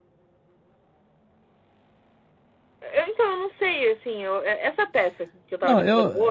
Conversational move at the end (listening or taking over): taking over